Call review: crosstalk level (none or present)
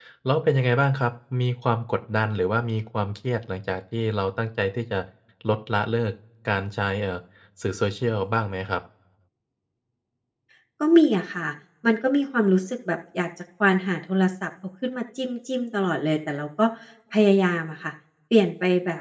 none